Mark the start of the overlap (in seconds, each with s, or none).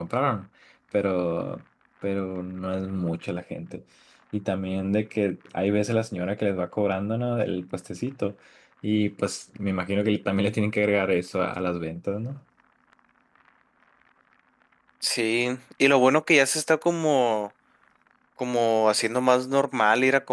none